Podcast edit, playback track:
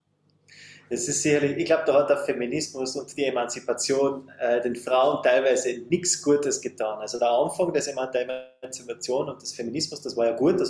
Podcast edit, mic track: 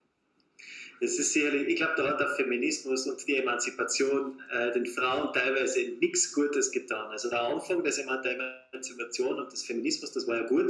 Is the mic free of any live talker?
Yes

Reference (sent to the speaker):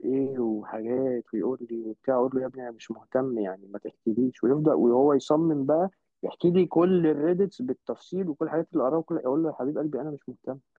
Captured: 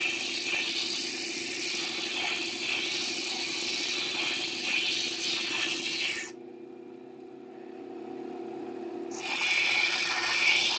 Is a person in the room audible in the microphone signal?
No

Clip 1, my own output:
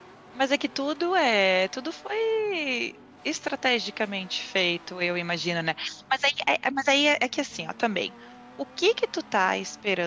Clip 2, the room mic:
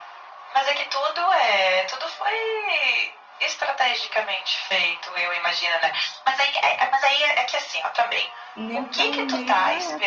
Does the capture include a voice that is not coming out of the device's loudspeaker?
Yes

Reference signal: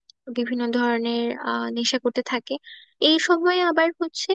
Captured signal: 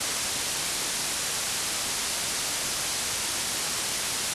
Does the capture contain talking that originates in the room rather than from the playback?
No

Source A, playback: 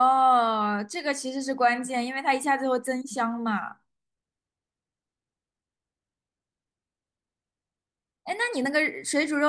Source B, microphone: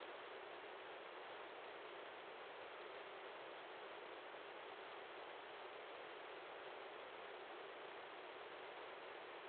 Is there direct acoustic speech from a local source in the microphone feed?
No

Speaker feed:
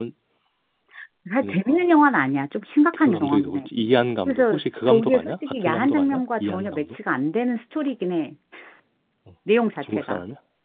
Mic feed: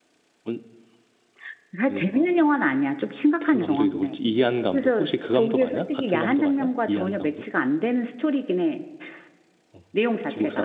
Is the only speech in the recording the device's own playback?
Yes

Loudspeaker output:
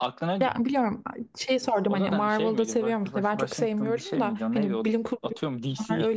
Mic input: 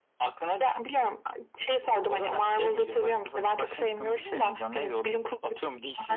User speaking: No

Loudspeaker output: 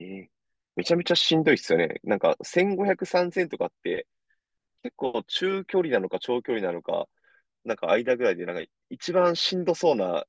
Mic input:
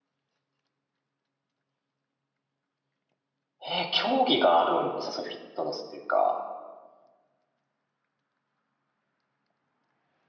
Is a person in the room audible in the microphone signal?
Yes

